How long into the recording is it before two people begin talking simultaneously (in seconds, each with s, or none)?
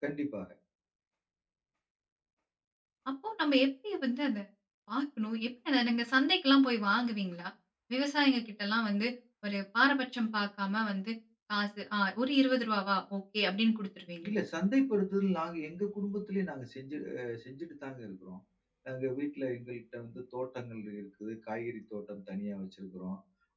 none